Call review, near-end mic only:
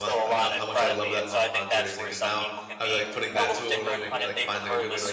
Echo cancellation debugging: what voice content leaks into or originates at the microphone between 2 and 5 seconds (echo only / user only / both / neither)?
both